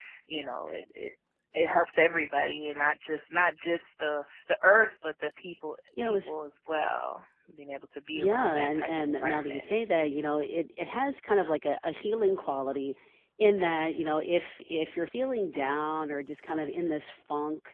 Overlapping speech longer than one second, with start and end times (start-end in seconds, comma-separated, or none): 8.2-9.6